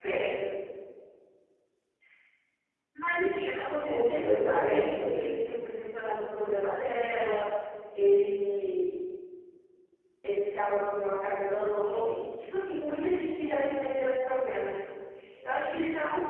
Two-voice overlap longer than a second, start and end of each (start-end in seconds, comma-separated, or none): 3.8-5.2